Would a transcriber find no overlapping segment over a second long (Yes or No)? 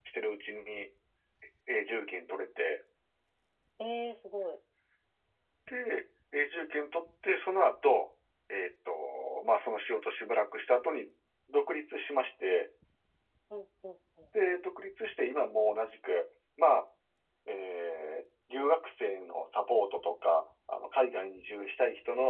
Yes